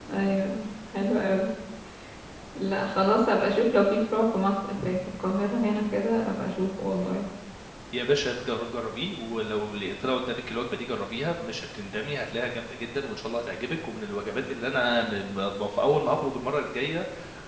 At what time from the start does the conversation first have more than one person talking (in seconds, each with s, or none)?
none